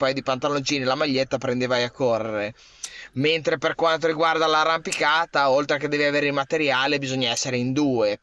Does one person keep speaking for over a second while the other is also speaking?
No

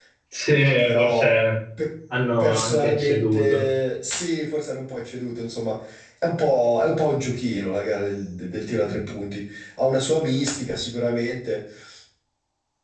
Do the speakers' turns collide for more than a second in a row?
Yes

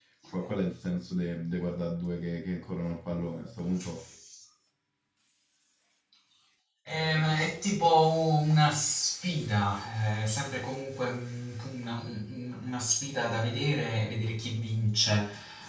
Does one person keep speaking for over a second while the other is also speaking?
No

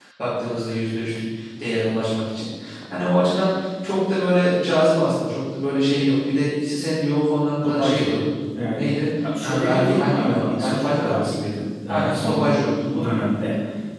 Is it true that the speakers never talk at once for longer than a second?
No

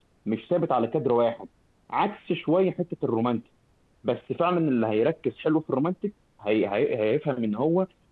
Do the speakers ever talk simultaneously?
No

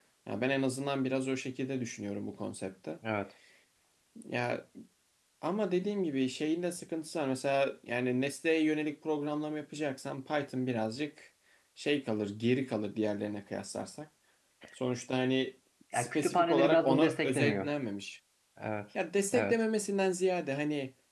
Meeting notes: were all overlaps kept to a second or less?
No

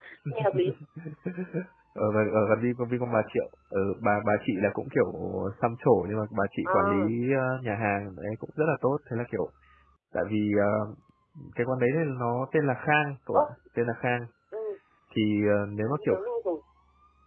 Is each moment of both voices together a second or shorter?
Yes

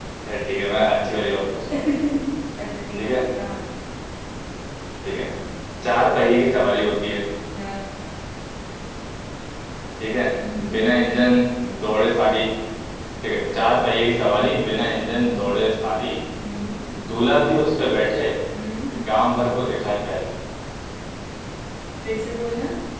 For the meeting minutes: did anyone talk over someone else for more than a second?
No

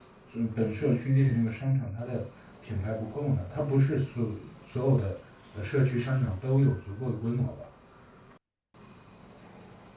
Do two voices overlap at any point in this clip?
No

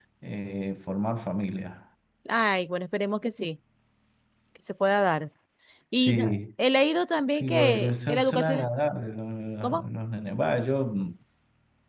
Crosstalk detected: Yes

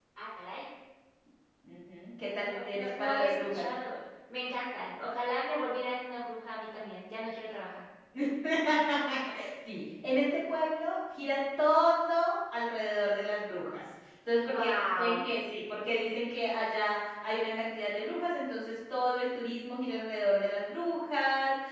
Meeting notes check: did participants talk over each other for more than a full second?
Yes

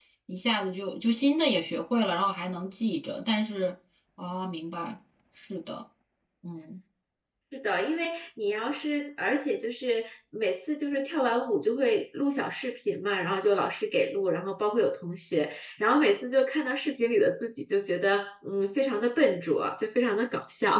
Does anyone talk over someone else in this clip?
No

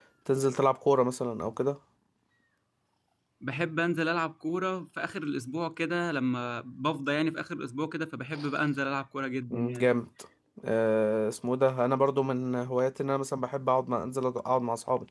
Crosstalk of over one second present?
No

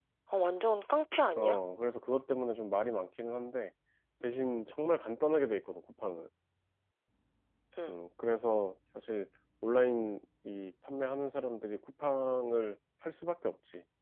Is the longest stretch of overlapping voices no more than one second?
Yes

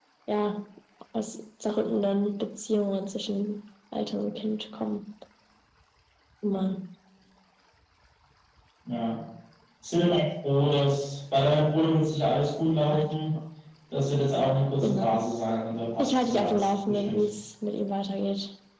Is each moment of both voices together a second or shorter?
No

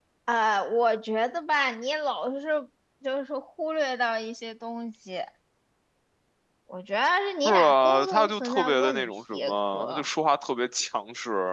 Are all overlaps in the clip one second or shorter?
No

